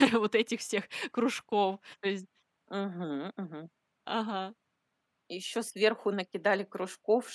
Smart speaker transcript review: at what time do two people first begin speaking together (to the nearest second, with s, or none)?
none